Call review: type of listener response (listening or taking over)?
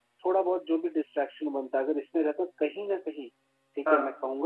listening